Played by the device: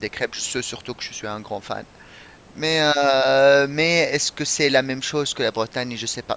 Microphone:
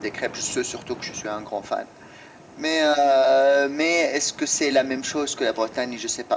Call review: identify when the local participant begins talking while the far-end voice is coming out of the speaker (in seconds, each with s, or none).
none